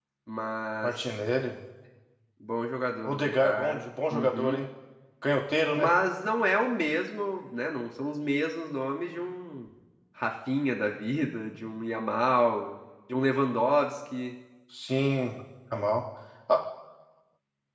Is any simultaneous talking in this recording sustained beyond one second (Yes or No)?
Yes